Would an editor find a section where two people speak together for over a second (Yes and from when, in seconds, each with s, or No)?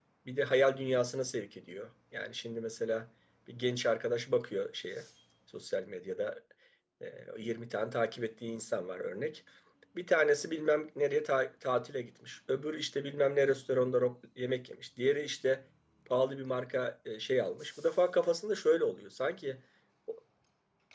No